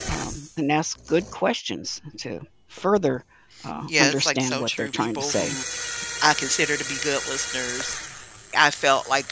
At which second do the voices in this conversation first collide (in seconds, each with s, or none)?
3.9 s